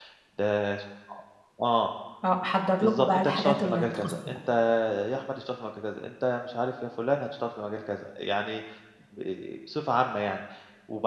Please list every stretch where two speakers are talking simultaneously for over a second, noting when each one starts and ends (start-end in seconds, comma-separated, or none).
2.8-4.1